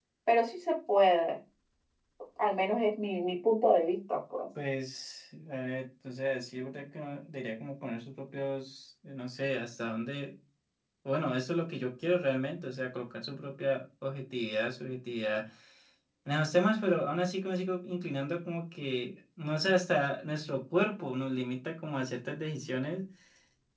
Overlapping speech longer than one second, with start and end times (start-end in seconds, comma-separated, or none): none